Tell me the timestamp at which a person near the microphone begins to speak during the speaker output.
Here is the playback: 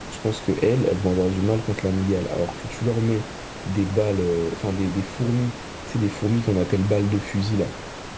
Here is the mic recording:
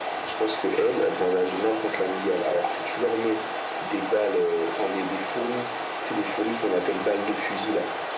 none

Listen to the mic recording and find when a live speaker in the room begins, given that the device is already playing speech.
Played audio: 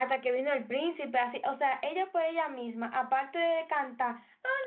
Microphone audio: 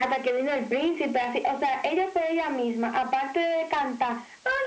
none

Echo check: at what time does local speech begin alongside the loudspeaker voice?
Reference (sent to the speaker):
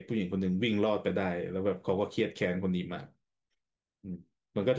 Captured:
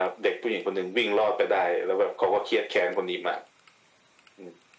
none

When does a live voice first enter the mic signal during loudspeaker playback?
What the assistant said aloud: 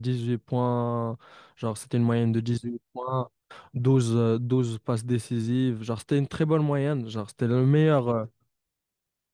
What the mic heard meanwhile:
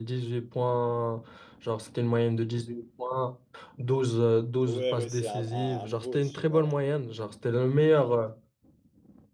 4.6 s

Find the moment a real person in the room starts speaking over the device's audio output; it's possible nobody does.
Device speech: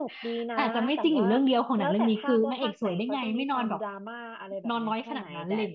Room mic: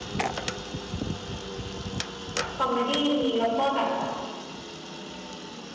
2.5 s

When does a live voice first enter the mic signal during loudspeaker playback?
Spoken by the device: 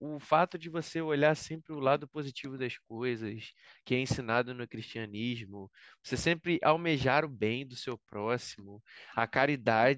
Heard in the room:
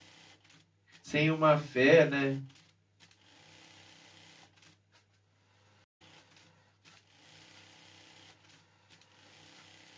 1.0 s

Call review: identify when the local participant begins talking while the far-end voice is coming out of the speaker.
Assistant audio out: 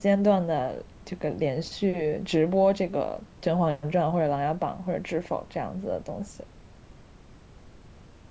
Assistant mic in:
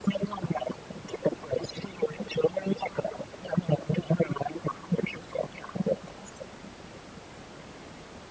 none

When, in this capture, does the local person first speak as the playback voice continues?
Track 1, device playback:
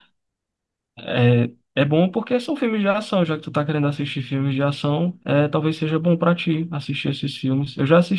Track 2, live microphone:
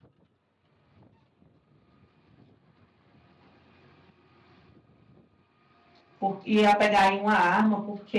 6.2 s

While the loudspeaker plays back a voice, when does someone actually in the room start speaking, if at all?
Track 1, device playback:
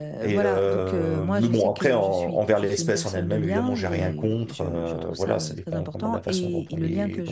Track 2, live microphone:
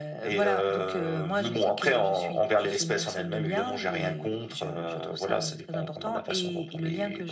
none

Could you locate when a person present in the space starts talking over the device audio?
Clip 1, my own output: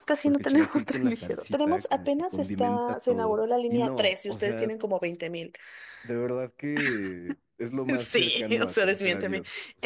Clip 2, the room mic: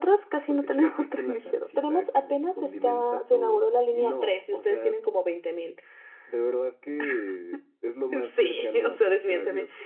none

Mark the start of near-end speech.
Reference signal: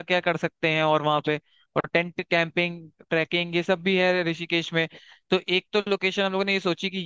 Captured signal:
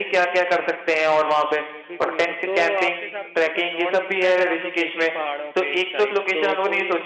1.9 s

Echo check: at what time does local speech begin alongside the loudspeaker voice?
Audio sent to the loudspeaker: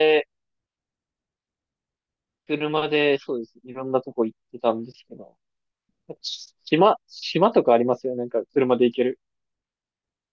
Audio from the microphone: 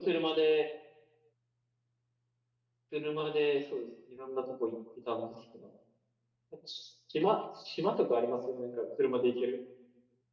none

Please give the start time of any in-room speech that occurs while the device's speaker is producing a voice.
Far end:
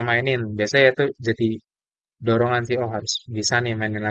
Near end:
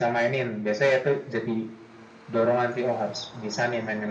none

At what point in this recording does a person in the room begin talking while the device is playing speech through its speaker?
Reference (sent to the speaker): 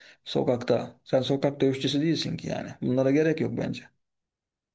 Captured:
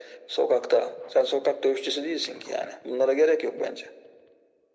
none

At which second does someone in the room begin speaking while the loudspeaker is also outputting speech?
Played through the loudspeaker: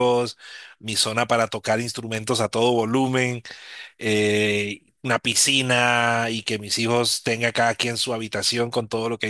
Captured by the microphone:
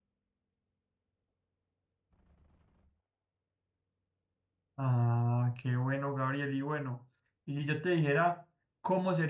4.8 s

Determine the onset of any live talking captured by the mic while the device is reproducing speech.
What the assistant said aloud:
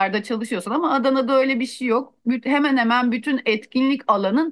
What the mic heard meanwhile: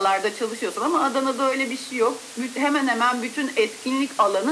none

